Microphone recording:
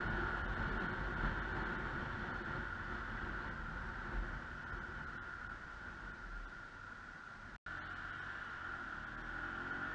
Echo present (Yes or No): No